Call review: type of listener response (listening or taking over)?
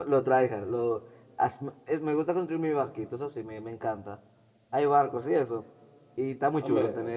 taking over